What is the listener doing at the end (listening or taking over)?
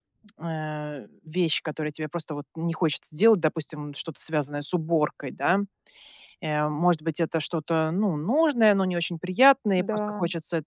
listening